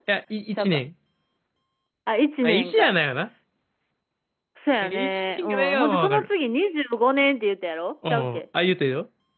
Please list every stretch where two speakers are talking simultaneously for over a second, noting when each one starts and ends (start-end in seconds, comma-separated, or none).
4.8-6.3